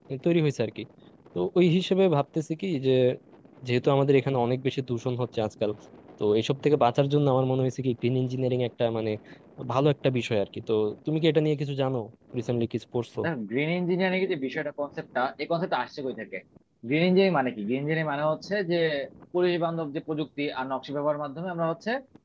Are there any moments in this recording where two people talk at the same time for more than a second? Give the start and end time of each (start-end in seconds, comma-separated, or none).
none